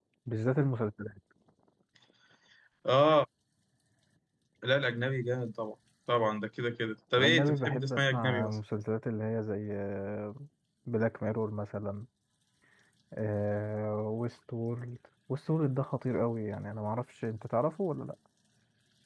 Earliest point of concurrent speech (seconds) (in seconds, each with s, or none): 7.2 s